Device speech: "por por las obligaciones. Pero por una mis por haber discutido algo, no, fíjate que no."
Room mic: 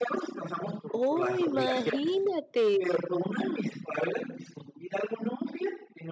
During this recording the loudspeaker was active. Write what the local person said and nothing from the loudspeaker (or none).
¡Oh, imagínate!